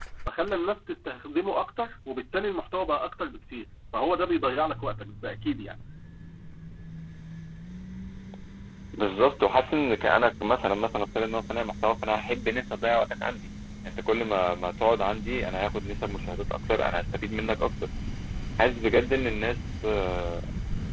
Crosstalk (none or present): none